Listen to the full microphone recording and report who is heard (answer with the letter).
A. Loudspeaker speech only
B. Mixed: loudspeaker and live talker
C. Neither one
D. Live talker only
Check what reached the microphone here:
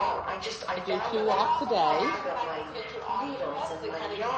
B